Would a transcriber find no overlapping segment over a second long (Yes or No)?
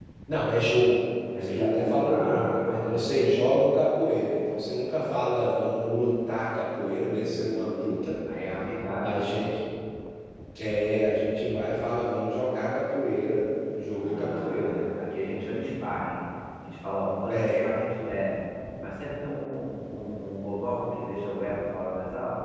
No